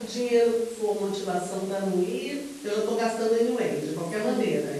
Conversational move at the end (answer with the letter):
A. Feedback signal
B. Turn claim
B